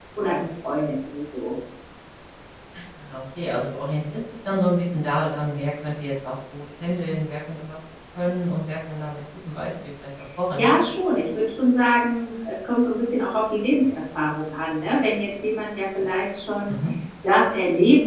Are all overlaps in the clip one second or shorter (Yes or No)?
Yes